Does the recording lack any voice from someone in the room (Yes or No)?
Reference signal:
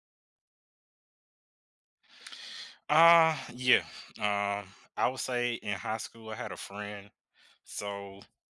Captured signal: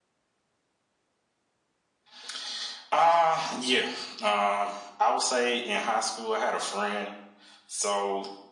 Yes